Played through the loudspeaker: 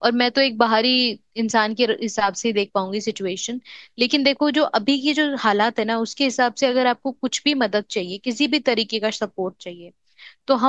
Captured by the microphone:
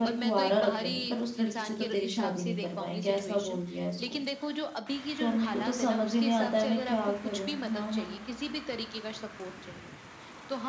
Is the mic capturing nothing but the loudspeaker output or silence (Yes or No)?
No